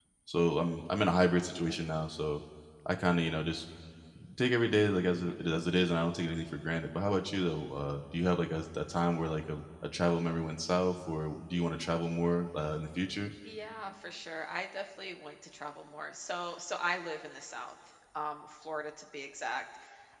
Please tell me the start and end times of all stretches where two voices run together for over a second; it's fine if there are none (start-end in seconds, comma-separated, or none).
none